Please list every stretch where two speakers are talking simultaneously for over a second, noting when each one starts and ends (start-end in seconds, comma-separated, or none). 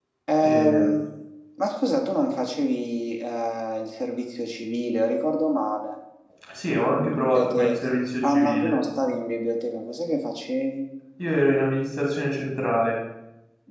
7.0-8.8